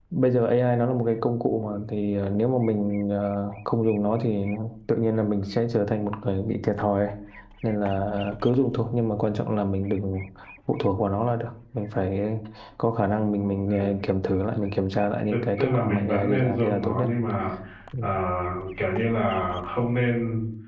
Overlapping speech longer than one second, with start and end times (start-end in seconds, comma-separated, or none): 15.3-17.1